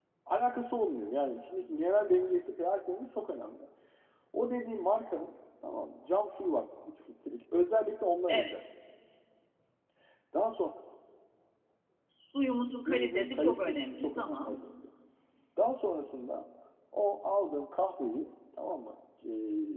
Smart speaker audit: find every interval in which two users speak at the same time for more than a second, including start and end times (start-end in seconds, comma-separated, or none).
12.9-14.5